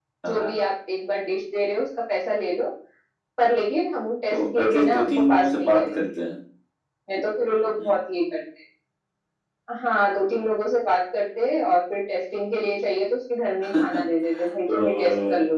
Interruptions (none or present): present